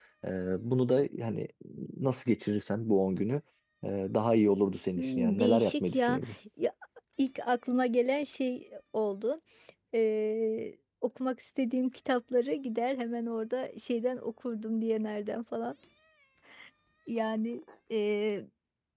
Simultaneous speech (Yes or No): Yes